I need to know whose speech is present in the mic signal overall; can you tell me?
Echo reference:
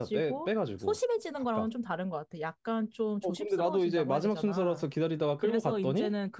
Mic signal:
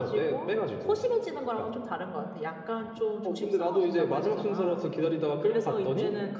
echo only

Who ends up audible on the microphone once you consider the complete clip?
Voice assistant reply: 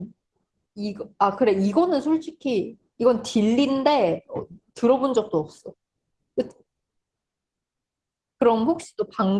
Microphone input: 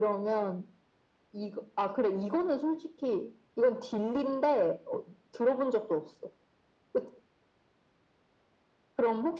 echo only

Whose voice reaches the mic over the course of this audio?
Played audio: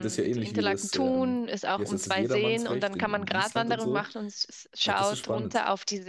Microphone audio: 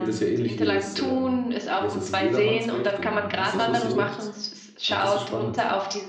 both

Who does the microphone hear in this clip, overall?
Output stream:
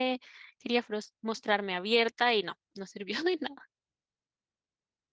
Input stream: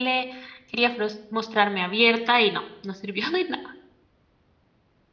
echo only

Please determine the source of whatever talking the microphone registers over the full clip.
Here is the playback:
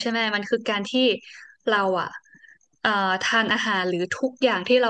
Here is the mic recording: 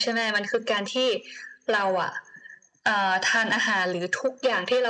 echo only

